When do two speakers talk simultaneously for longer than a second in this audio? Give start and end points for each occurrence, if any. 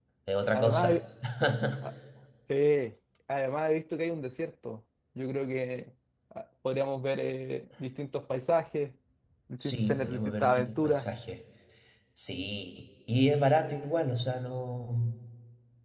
9.6-11.0

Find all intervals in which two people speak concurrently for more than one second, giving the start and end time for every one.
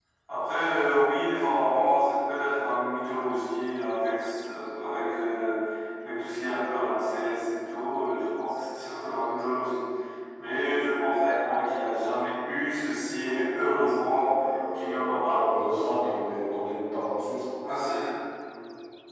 14.7-16.1

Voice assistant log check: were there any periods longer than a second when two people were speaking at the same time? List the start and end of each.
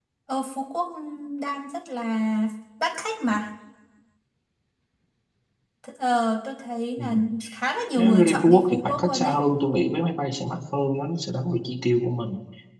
8.0-9.4

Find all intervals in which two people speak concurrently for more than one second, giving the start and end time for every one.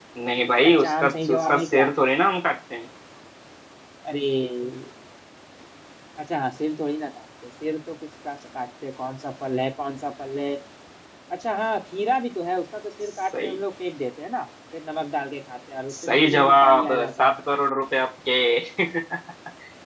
0.6-1.9, 16.0-17.4

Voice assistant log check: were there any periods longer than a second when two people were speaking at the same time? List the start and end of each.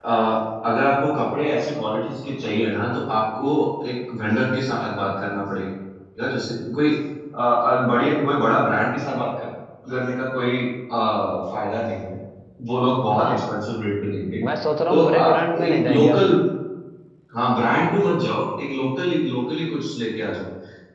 14.9-16.4

